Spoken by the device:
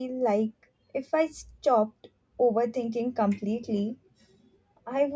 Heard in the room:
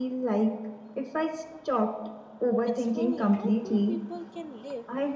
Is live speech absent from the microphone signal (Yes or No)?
No